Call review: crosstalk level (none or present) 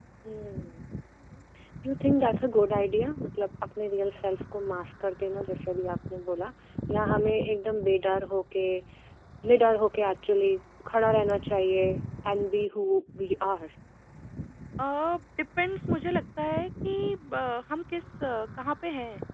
none